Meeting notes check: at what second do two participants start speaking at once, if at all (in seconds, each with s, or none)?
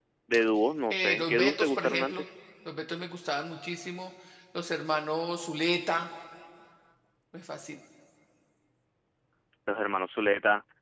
0.9 s